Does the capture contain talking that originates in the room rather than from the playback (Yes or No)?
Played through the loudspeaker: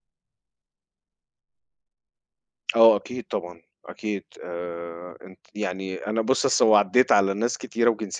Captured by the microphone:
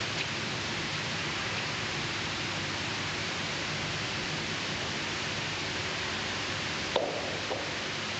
No